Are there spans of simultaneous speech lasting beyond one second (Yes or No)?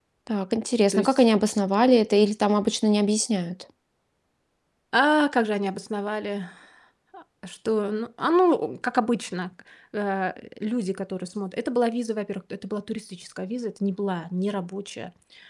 No